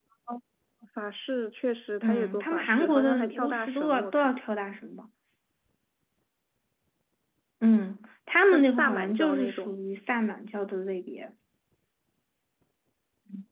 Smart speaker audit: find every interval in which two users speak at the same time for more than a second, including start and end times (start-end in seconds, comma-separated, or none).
2.0-4.4, 8.5-9.8